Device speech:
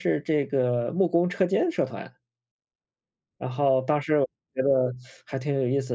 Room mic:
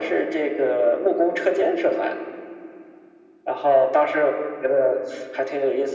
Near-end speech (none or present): none